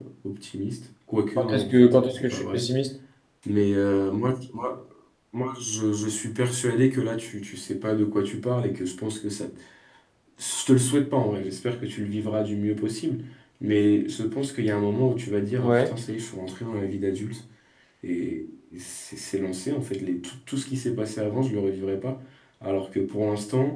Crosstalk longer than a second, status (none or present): present